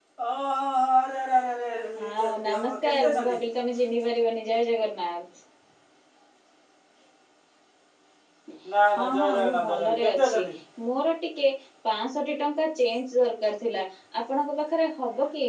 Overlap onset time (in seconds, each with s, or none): 2.0 s